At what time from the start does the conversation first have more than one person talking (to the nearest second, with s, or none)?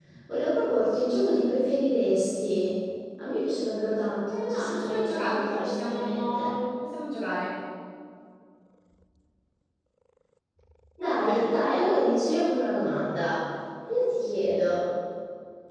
4 s